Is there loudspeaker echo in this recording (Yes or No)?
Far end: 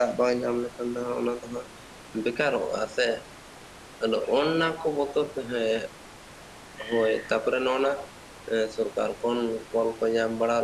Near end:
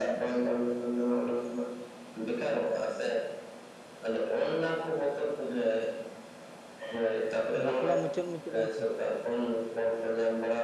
Yes